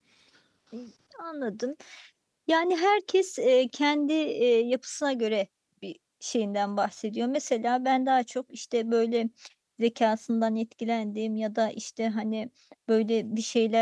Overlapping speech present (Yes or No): No